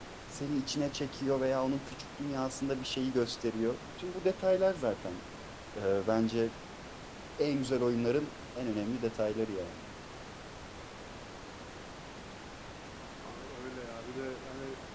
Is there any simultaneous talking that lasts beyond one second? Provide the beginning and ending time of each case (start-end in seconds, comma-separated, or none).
none